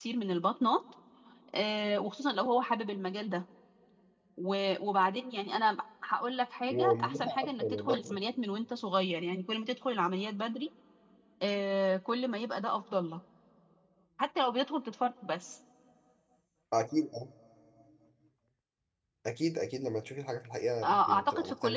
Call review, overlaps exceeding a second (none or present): present